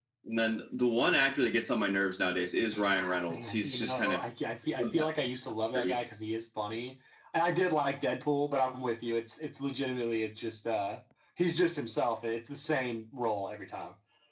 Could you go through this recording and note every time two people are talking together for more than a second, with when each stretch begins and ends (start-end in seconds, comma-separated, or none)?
2.7-4.2